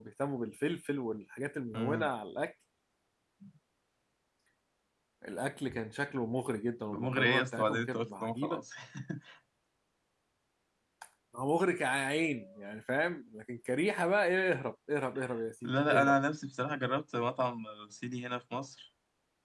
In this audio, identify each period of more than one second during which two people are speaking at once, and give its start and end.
6.9-8.6

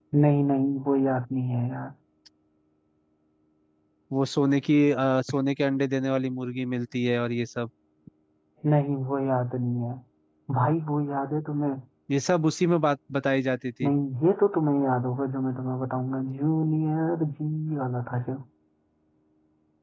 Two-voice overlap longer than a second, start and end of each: none

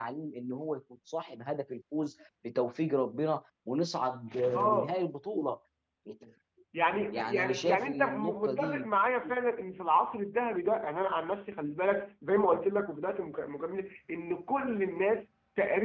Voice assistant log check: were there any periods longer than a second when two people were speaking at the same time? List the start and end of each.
7.3-8.9

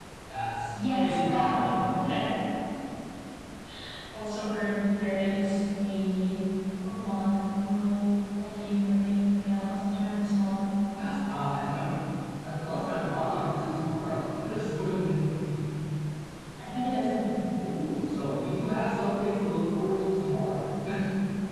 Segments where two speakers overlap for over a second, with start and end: 0.7-1.9

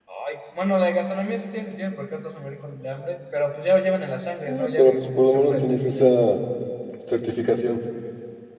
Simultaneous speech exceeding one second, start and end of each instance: 4.5-6.2

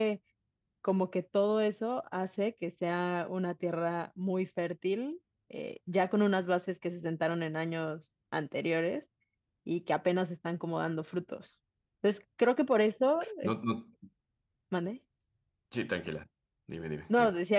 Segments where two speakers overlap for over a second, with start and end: none

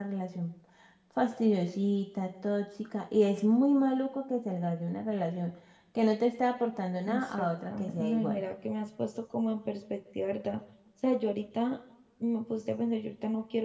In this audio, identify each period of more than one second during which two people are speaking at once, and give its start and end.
7.0-8.4

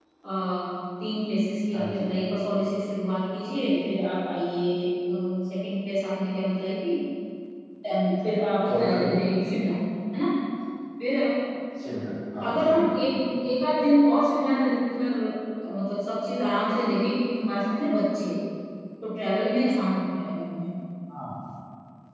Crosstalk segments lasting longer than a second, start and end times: none

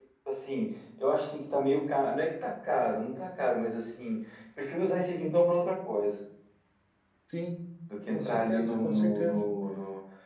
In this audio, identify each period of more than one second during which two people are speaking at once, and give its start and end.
8.1-9.4

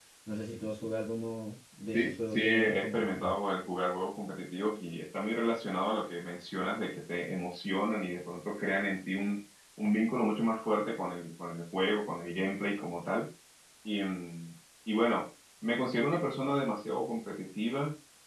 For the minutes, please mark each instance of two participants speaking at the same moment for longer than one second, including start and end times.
1.9-3.3

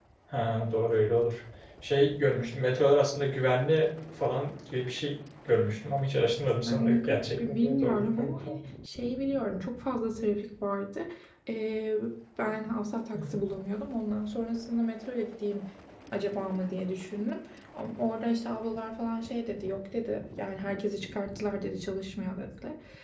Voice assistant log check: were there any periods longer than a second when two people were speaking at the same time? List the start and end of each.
6.7-8.6

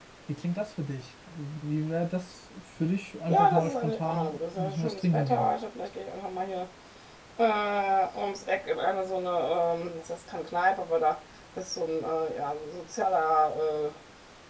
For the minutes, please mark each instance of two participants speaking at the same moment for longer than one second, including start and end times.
3.3-5.5

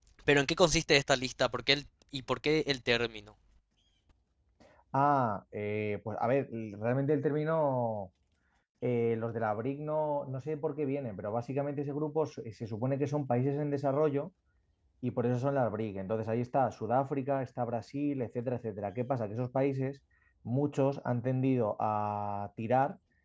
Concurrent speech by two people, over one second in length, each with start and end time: none

